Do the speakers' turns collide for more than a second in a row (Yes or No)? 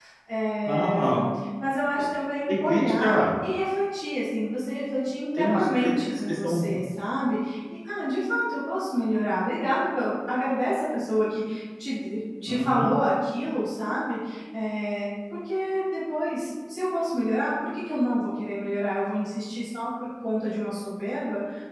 Yes